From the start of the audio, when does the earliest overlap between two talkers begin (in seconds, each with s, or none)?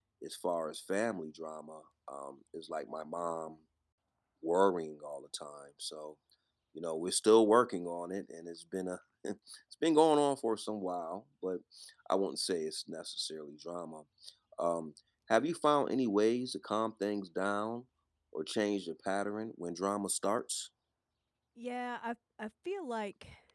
none